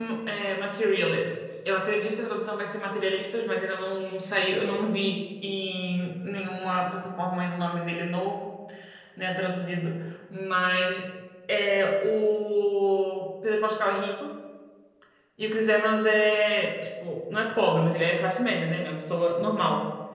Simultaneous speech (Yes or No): No